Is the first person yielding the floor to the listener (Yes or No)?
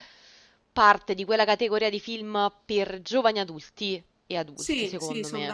Yes